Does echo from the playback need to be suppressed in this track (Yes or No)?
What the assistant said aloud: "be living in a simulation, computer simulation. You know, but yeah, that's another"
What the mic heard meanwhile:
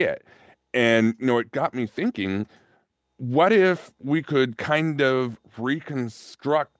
No